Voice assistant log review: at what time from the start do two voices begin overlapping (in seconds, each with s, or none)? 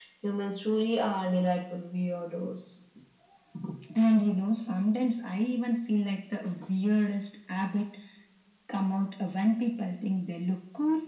none